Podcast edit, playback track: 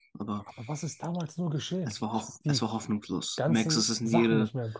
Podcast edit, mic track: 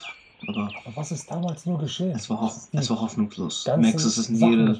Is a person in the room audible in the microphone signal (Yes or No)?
No